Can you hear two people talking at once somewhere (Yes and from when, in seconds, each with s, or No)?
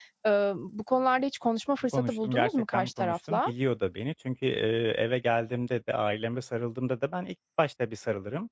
Yes, from 1.9 s